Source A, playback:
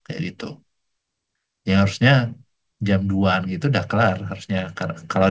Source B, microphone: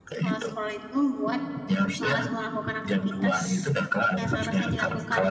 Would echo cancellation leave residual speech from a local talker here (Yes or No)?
Yes